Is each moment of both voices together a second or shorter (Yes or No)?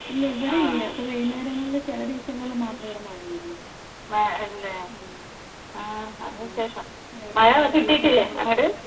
No